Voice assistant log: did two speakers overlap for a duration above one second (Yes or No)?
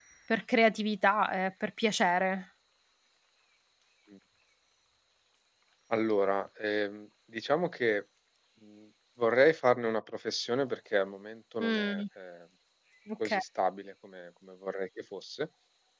No